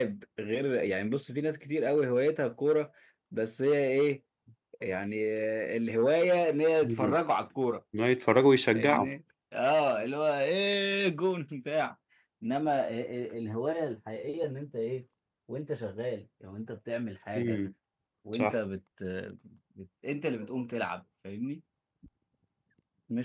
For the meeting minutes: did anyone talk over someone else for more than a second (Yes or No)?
No